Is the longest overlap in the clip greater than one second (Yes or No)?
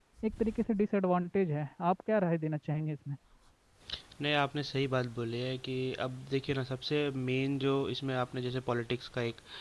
No